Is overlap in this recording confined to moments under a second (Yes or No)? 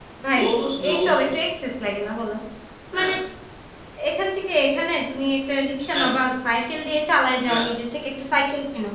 Yes